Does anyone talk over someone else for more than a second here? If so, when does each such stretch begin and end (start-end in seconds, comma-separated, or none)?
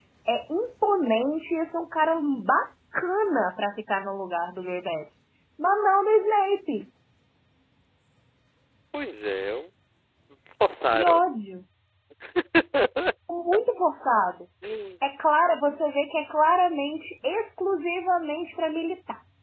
none